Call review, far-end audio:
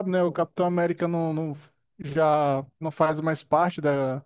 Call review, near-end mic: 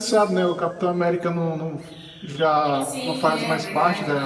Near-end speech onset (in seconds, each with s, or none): 2.8 s